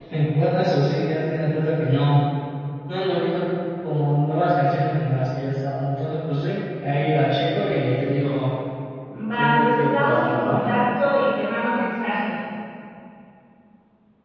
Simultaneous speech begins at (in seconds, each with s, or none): 9.3 s